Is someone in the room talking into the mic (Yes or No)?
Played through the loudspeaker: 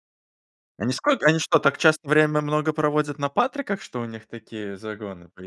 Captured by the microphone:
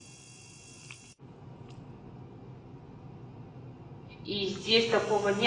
Yes